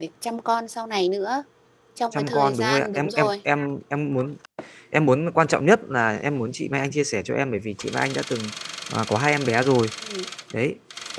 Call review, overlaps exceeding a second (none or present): present